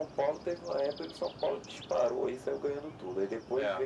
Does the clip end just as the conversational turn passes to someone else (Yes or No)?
No